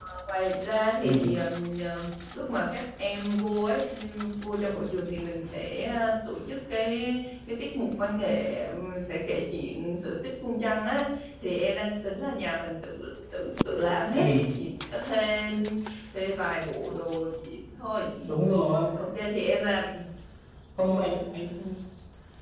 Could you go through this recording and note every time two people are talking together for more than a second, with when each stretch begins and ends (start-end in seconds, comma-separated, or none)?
none